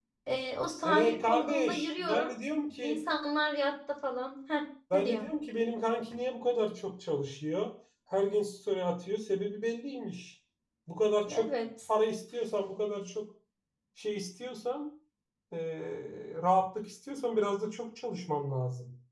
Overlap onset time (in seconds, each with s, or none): 0.8 s